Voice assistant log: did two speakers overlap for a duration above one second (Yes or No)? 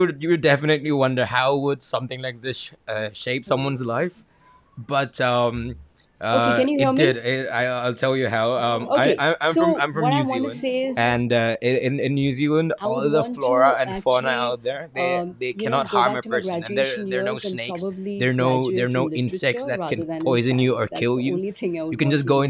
Yes